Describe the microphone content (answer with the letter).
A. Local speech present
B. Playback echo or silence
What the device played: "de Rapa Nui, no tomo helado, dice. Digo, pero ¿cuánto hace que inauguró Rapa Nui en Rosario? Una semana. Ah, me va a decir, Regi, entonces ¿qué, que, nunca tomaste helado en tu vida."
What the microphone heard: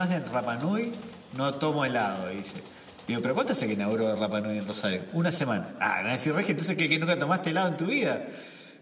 B